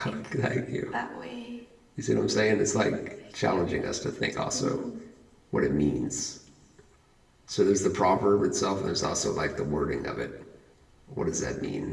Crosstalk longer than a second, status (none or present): none